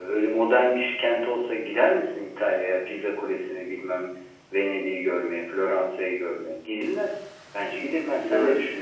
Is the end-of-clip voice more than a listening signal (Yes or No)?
Yes